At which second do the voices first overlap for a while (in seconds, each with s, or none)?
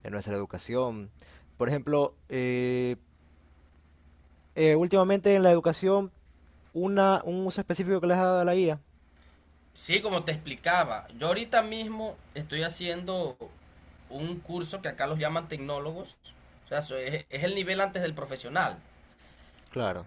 none